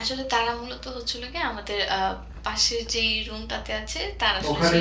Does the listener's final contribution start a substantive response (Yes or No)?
No